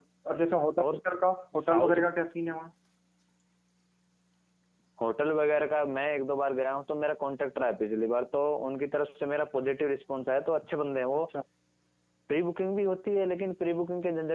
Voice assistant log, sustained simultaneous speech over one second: none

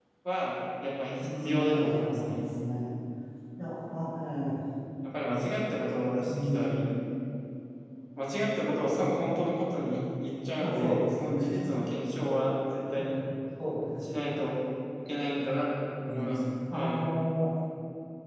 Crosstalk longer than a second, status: present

